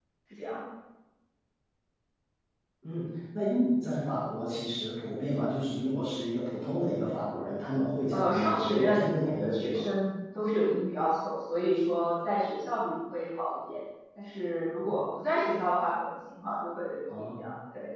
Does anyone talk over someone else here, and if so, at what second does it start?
8.1 s

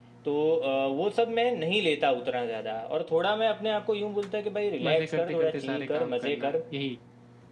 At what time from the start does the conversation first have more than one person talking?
4.8 s

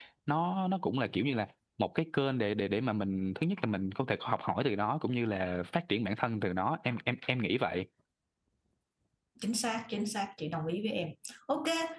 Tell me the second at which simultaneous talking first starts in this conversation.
none

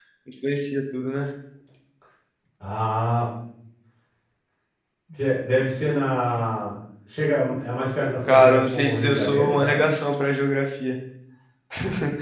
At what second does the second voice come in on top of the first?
8.3 s

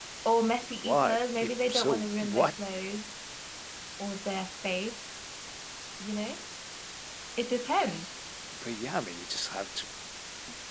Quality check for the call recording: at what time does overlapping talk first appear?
0.8 s

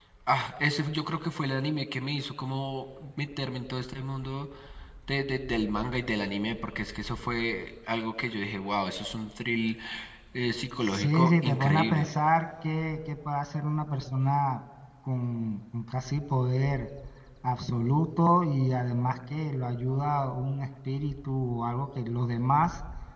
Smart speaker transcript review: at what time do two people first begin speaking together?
10.8 s

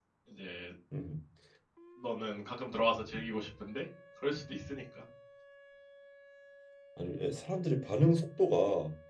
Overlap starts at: none

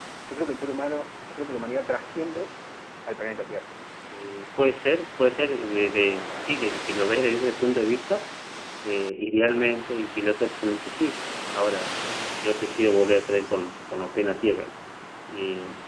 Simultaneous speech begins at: none

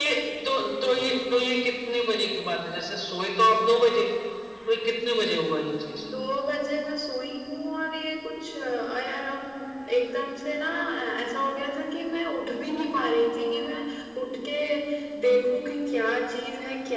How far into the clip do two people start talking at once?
none

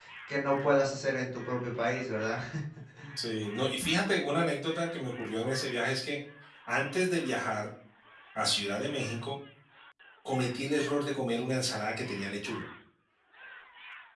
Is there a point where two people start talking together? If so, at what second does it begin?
none

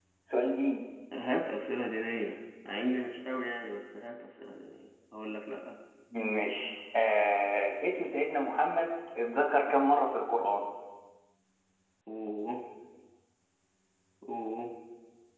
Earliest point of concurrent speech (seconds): none

